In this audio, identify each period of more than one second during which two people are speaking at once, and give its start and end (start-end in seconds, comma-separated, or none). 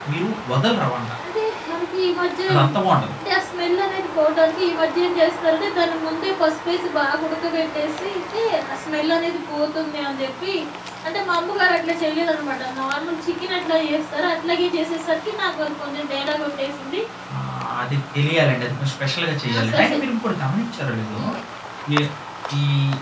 none